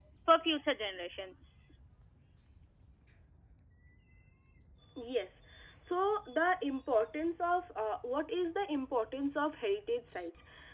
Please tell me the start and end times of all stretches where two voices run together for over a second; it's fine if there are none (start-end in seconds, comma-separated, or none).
none